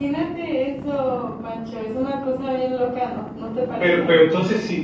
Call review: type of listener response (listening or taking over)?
taking over